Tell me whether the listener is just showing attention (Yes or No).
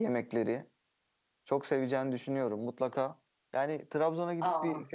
Yes